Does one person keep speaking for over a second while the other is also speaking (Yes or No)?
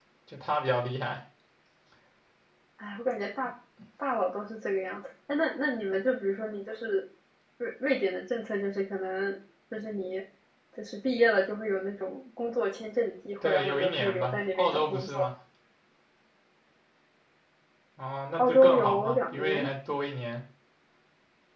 Yes